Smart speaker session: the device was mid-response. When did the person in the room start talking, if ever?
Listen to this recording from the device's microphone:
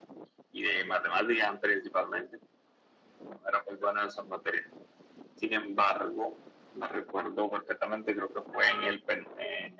none

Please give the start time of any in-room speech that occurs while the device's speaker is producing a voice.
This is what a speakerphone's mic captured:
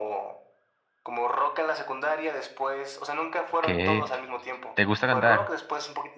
3.6 s

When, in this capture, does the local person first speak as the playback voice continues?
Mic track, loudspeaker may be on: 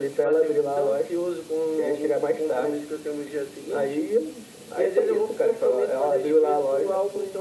none

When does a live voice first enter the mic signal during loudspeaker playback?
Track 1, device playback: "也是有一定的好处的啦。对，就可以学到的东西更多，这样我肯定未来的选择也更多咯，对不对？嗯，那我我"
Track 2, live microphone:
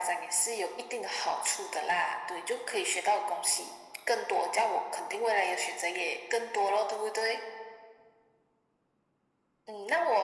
none

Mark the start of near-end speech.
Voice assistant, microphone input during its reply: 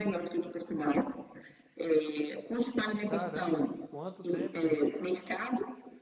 3.1 s

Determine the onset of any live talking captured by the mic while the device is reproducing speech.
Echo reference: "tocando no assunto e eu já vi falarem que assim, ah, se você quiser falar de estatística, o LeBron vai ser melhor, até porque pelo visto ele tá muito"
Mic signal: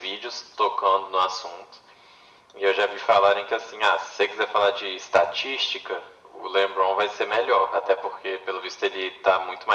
none

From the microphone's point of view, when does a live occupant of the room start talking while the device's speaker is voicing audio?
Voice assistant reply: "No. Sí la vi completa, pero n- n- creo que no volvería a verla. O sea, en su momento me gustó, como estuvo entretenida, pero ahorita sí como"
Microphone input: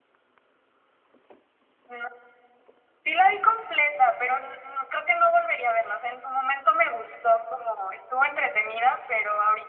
none

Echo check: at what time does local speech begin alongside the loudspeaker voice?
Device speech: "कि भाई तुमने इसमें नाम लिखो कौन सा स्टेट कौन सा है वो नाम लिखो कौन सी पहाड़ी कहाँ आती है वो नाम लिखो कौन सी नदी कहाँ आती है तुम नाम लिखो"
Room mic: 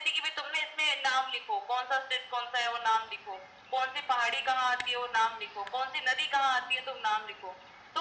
none

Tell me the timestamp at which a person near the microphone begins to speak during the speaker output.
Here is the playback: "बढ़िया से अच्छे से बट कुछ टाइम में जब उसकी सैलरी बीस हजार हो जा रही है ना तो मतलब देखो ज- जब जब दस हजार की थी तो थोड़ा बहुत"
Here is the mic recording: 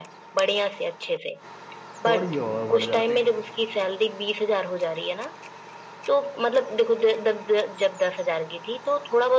2.1 s

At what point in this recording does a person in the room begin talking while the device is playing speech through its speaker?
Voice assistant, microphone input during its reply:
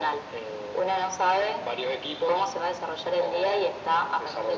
none

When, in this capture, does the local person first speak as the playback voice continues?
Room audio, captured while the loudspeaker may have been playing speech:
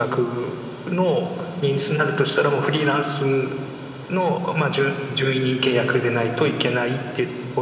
none

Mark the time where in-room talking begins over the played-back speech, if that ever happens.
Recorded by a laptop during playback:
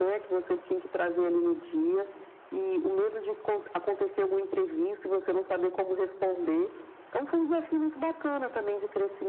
none

